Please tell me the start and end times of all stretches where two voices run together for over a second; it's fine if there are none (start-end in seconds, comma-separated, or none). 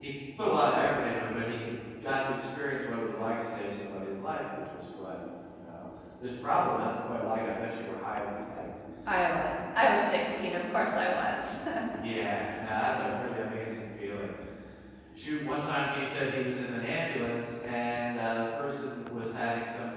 none